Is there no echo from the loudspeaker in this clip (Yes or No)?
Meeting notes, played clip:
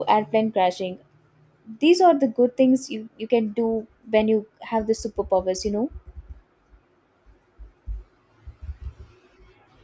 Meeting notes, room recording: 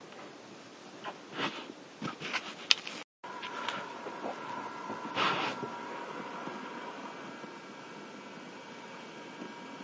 Yes